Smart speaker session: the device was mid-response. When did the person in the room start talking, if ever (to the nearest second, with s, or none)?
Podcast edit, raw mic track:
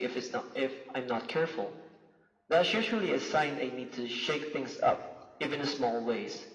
none